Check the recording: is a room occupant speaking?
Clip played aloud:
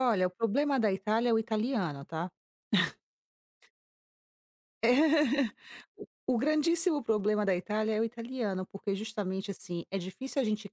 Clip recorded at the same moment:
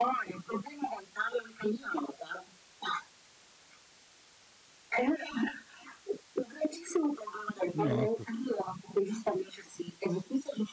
Yes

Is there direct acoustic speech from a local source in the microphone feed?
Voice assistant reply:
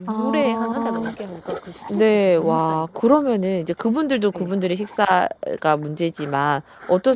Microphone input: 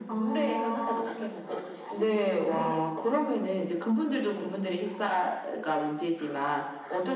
No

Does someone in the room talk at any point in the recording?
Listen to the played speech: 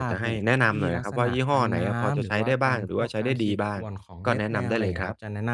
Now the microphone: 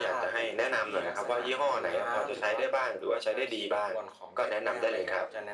No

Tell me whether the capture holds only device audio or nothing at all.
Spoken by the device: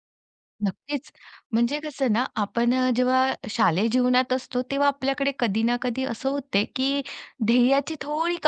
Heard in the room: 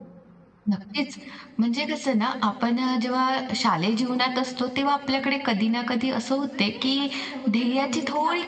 No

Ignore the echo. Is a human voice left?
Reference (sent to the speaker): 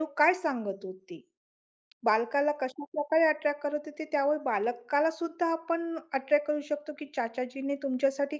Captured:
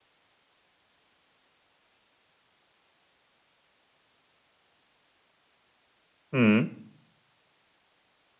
Yes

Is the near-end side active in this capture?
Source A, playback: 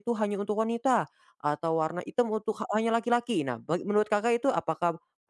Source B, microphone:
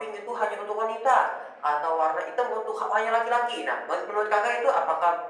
No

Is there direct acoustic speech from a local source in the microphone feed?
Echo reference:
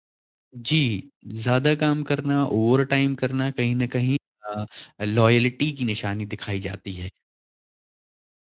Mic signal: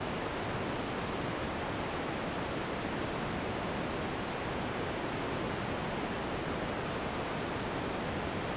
No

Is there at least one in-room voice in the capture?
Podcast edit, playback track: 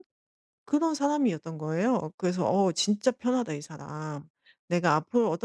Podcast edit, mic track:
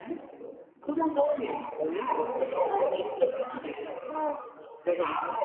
No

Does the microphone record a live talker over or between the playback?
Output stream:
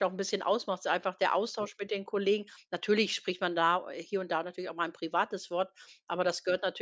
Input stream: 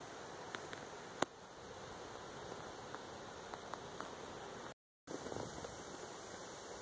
No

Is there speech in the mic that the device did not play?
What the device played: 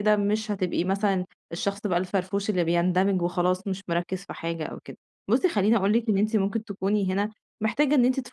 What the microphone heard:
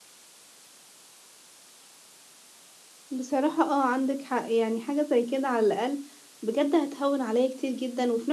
Yes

